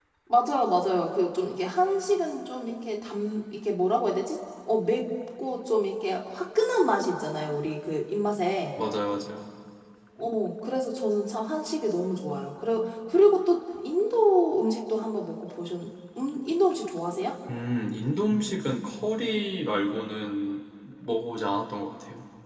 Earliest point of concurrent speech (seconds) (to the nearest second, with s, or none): none